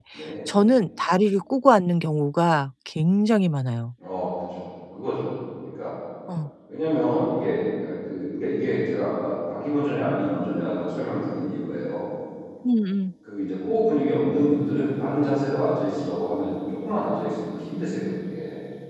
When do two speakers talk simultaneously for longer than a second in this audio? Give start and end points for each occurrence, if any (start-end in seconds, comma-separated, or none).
none